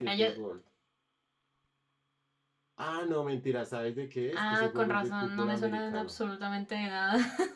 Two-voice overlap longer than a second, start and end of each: 4.3-6.2

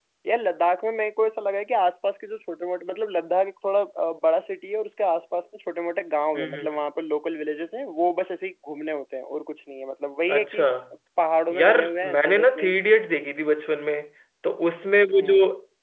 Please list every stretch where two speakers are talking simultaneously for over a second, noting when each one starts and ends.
11.5-12.7

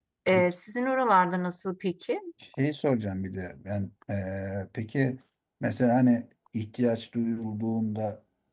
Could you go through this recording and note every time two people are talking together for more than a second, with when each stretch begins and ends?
none

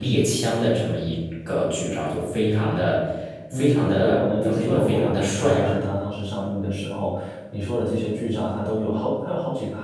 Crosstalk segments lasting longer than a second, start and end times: 3.5-5.8

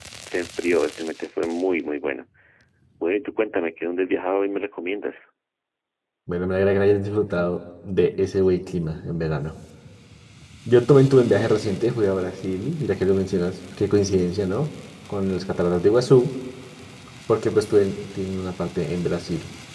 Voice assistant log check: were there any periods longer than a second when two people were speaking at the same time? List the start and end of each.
none

